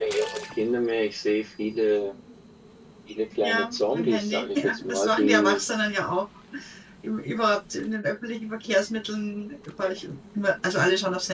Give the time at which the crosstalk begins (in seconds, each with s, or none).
3.4 s